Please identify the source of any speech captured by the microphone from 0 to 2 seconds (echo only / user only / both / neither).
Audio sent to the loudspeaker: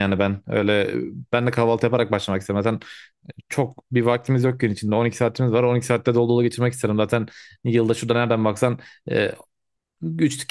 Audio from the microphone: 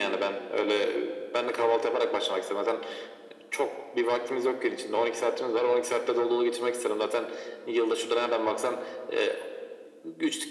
echo only